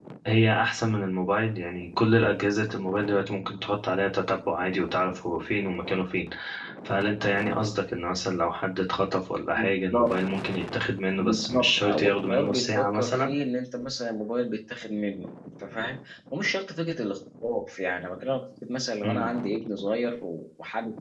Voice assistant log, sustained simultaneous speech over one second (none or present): present